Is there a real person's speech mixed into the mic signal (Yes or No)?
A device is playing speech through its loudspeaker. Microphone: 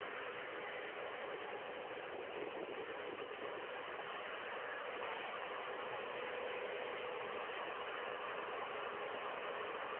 No